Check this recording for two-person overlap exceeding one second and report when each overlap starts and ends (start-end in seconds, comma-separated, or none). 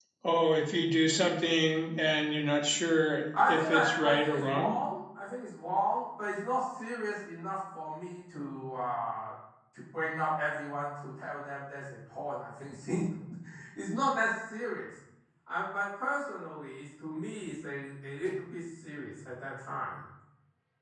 3.5-4.7